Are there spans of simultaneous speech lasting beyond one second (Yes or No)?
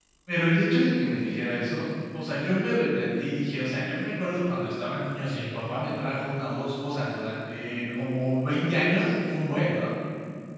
No